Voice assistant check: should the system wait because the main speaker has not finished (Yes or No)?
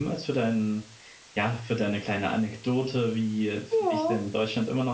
Yes